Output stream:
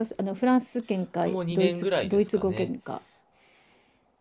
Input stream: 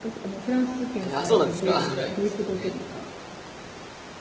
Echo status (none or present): present